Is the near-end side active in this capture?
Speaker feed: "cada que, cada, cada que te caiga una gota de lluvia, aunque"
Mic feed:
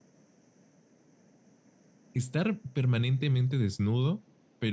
Yes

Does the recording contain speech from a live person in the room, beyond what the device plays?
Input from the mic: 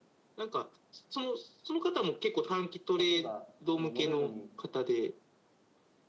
Yes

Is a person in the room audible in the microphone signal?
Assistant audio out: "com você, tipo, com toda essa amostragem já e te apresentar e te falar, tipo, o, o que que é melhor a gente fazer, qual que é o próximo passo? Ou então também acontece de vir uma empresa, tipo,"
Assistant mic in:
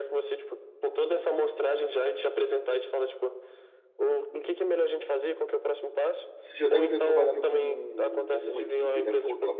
Yes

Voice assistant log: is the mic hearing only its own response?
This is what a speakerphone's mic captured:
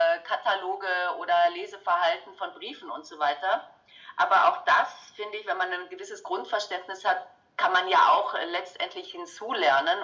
Yes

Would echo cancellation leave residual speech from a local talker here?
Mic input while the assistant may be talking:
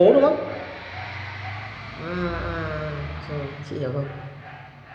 Yes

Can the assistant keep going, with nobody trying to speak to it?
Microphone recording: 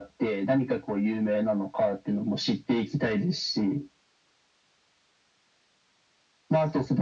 Yes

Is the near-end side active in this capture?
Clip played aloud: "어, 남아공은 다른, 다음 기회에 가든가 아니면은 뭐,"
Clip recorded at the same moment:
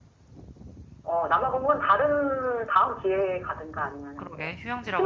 Yes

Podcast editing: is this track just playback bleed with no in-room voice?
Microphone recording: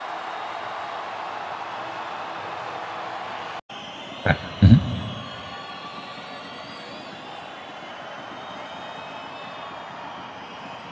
No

